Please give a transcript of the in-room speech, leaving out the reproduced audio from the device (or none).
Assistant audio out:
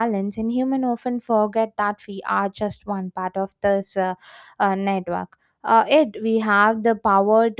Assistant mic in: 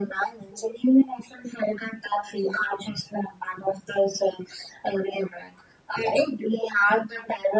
none